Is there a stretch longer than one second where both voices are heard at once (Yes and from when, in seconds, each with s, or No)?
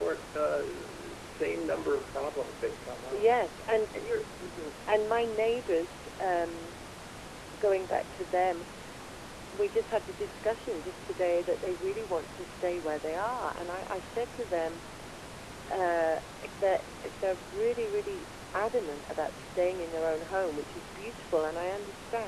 No